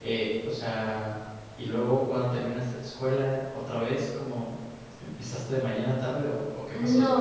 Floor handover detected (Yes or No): Yes